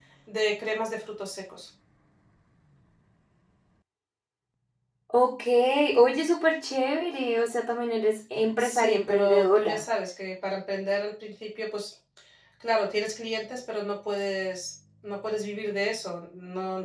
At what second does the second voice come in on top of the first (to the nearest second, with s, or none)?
9 s